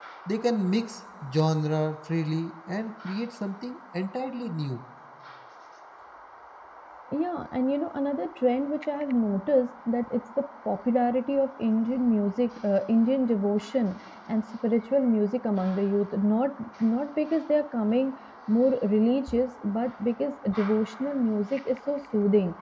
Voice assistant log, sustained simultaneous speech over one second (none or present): none